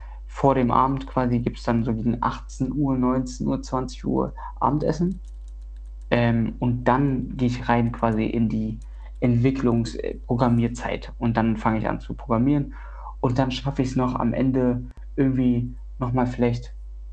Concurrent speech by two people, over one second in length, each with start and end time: none

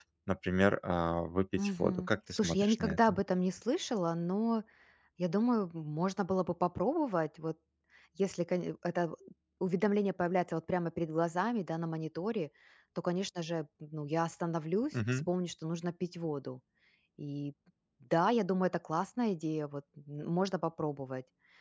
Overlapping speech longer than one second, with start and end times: 1.6-3.2

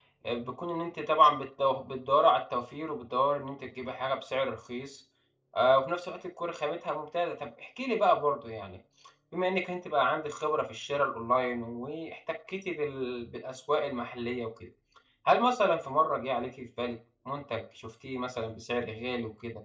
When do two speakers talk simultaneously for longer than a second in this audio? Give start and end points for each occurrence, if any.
none

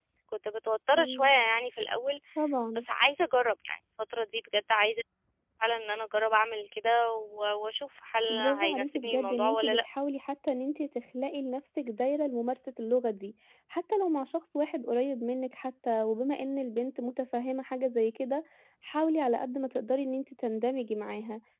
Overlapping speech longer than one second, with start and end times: 8.3-9.9

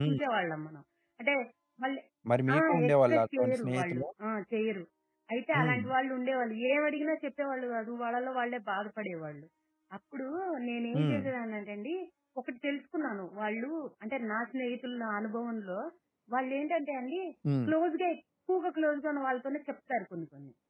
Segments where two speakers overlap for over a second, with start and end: 2.6-4.0

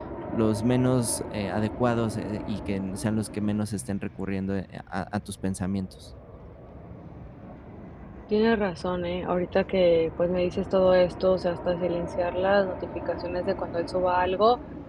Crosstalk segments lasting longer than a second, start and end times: none

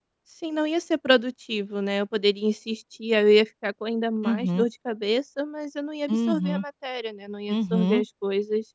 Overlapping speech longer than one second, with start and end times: none

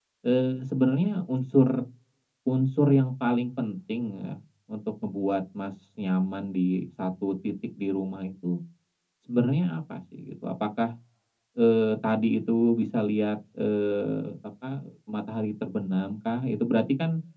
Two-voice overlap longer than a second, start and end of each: none

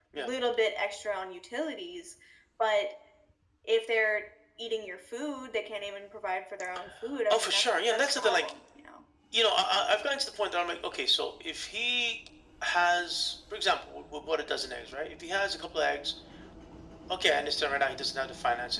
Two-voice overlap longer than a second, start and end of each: 7.3-8.5

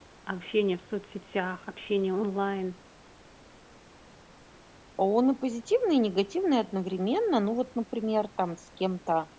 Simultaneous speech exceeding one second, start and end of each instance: none

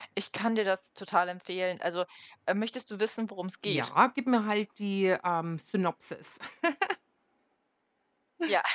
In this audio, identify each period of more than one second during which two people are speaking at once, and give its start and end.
none

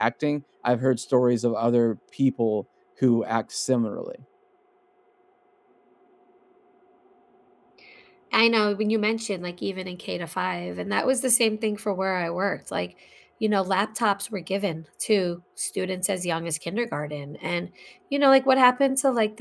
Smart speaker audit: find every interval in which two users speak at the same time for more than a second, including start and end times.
none

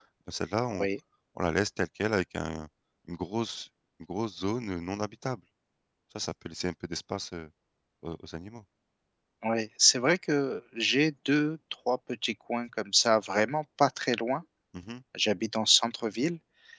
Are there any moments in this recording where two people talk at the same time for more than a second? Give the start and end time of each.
none

